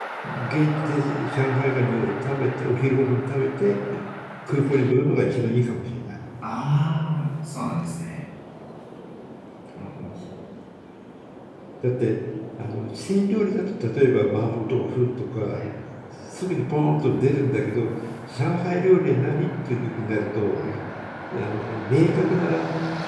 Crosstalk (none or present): none